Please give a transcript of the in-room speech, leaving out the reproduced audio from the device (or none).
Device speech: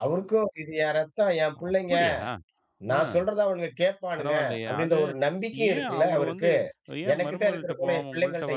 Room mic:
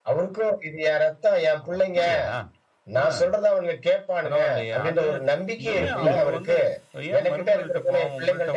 அற்புதம்.